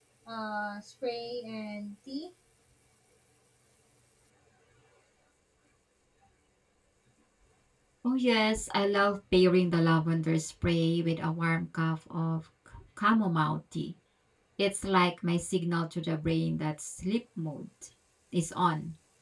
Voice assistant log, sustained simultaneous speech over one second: none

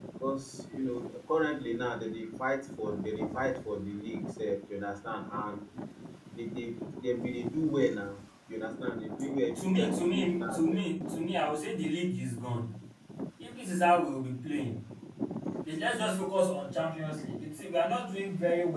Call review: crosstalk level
present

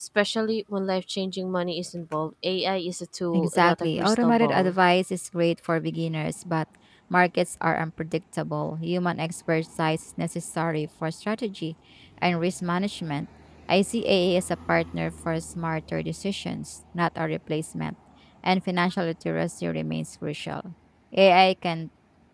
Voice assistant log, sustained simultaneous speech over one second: present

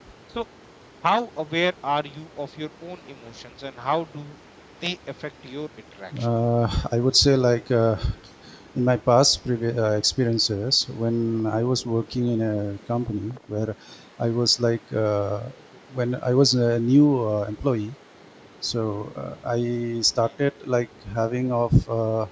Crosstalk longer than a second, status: none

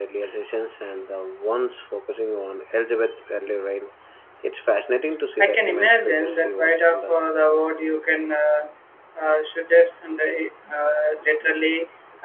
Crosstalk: present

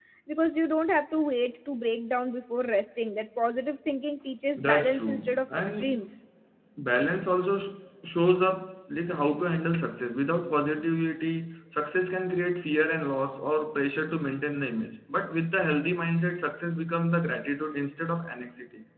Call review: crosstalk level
present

